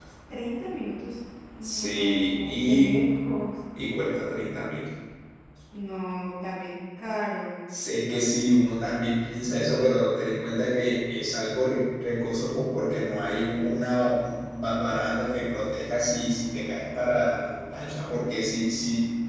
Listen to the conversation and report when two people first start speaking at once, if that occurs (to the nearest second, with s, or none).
2 s